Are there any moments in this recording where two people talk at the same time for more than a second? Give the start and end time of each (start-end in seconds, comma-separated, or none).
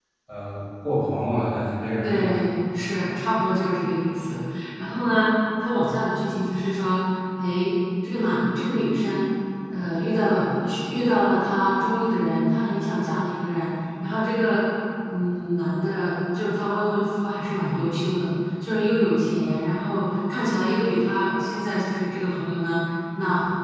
none